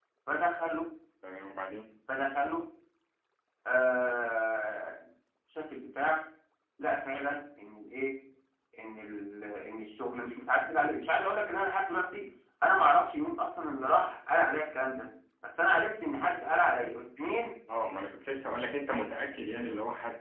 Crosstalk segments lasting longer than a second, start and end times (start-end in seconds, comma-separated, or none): none